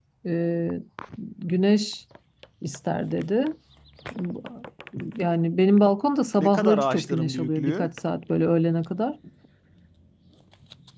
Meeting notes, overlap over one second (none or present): present